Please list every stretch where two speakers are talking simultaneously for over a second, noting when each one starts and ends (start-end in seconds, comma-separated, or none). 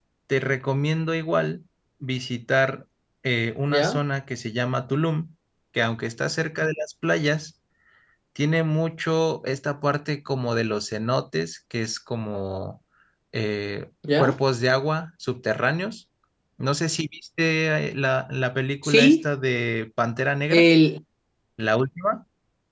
none